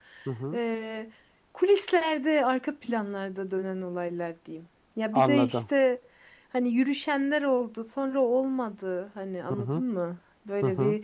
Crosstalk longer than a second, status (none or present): none